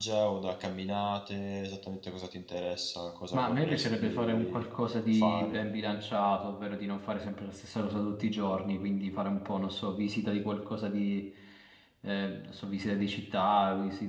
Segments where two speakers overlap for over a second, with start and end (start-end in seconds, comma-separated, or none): 3.3-4.7